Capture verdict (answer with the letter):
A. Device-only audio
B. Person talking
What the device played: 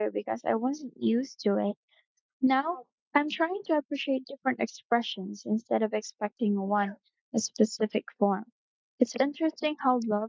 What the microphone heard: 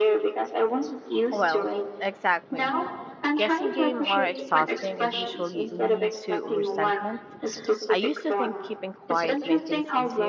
B